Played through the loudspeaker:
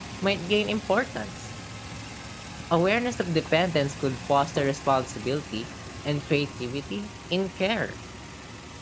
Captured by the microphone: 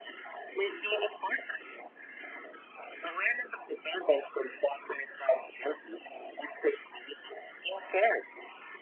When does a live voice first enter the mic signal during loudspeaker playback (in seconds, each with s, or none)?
none